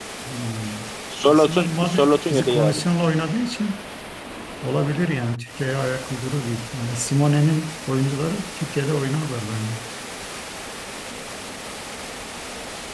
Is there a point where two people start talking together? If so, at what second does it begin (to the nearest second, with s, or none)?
1 s